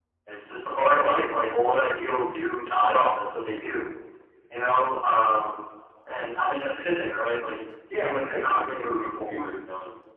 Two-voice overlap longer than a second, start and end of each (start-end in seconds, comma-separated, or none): 8.0-9.5